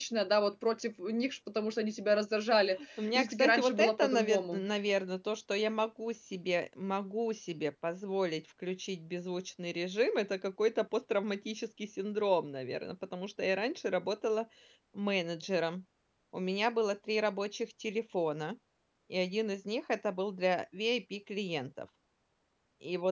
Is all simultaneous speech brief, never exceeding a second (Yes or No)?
No